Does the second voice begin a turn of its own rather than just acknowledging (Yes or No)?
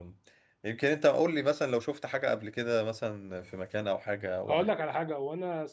Yes